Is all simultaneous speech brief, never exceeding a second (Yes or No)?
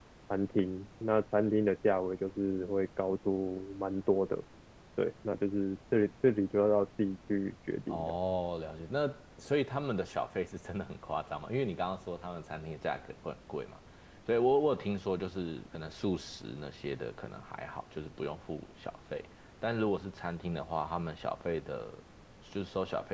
Yes